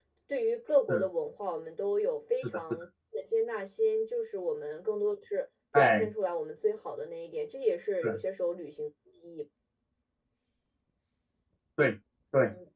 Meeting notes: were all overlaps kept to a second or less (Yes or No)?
Yes